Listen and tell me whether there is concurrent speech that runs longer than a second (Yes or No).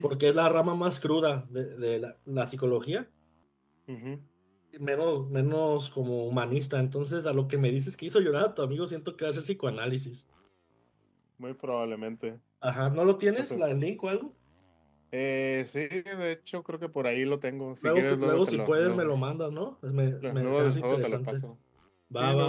Yes